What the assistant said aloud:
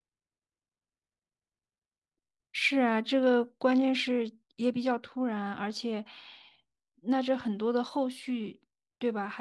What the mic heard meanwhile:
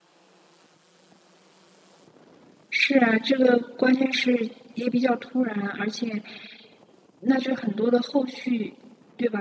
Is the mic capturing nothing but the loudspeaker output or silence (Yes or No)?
Yes